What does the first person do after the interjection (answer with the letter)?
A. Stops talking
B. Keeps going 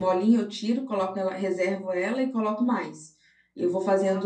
B